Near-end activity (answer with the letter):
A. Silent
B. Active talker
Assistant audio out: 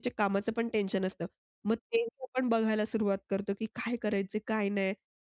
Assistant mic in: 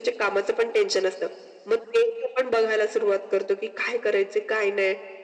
A